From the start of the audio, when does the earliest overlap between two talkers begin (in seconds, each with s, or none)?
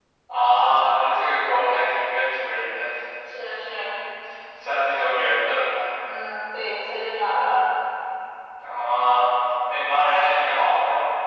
none